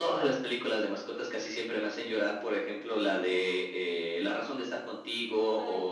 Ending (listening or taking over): listening